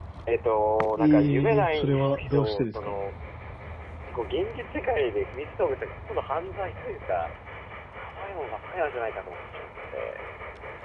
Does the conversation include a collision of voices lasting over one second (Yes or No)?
Yes